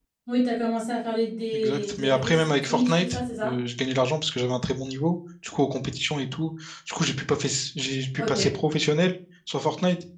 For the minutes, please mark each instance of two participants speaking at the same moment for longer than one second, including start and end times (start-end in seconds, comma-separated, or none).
1.5-3.5